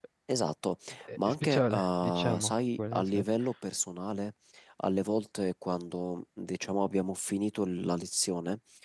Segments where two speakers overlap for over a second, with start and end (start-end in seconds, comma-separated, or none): 1.3-2.9